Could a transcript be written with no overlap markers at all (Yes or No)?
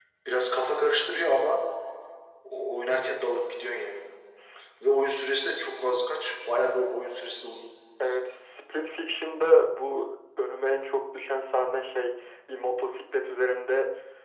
Yes